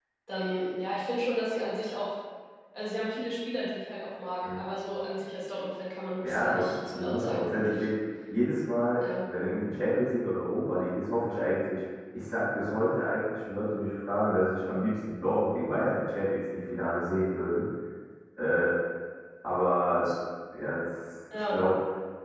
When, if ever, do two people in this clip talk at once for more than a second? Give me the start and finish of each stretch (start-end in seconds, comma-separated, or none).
6.2-7.8